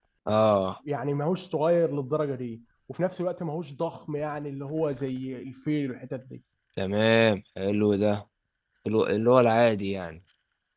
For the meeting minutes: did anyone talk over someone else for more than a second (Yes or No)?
No